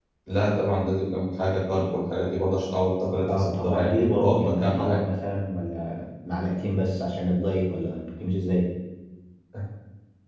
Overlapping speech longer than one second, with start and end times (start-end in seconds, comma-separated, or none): 3.3-5.0